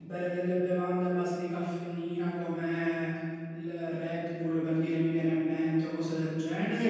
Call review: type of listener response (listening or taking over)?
taking over